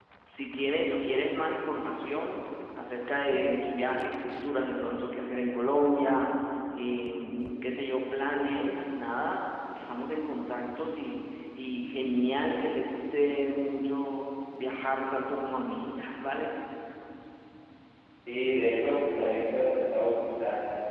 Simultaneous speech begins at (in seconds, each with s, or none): none